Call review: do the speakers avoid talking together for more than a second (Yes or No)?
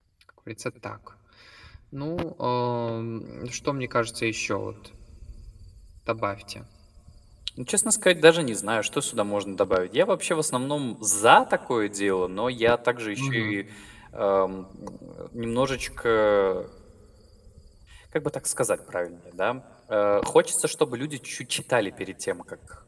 Yes